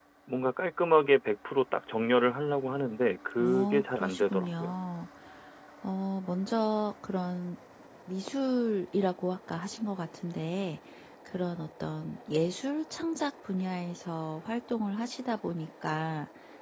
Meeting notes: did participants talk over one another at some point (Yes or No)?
Yes